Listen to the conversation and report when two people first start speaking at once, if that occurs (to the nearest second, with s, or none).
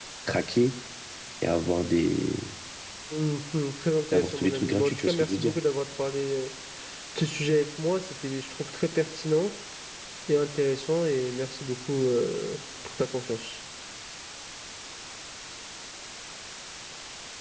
4 s